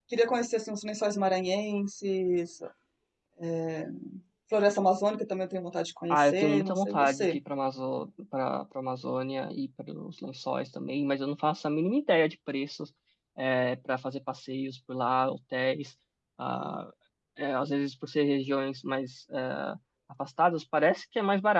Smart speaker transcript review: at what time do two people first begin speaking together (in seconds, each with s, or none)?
6.1 s